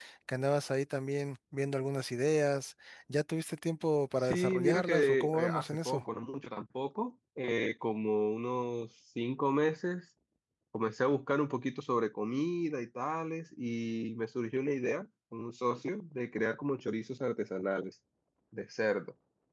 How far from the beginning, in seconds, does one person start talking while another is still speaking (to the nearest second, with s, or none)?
4 s